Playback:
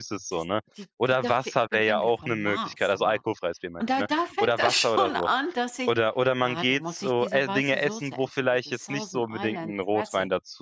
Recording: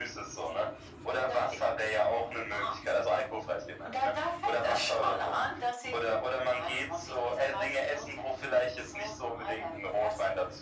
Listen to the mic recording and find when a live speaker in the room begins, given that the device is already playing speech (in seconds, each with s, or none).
none